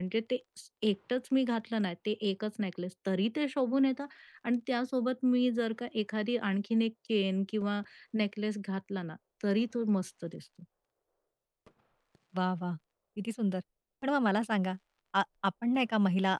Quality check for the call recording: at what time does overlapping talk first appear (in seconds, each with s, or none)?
none